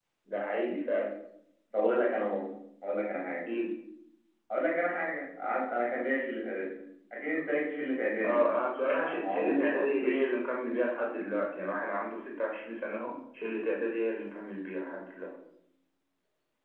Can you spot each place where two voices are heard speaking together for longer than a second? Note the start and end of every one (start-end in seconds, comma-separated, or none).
8.9-10.3